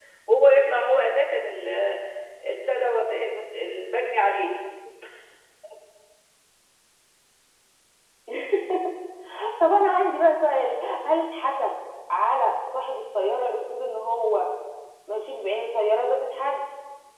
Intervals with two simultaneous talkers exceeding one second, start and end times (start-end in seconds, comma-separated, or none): none